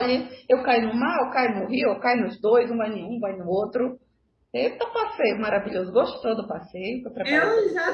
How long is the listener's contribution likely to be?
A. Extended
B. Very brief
A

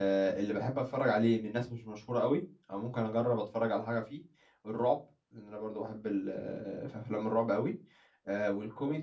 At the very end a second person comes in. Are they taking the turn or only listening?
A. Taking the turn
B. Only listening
B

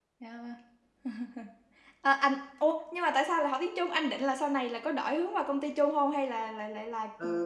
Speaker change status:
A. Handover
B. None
A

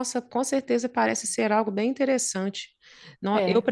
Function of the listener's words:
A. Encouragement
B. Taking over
A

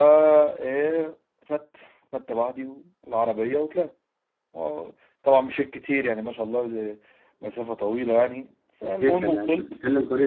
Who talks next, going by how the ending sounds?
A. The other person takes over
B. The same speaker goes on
A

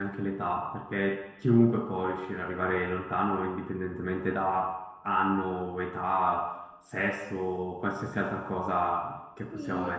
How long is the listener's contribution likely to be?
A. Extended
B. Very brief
A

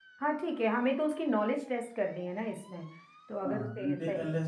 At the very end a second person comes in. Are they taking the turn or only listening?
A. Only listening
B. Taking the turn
B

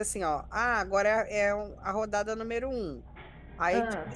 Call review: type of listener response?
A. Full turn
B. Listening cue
B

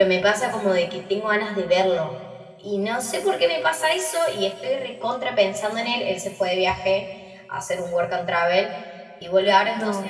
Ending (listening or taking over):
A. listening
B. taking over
A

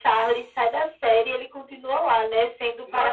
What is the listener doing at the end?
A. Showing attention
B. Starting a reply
A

